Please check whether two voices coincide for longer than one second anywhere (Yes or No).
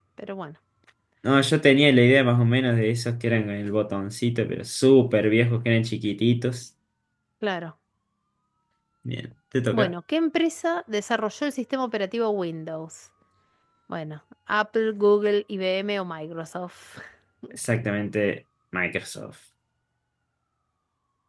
No